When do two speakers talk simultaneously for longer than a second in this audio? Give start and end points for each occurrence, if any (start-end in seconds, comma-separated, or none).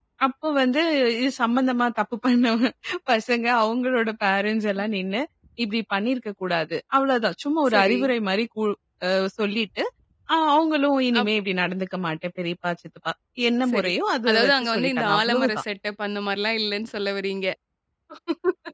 14.3-15.6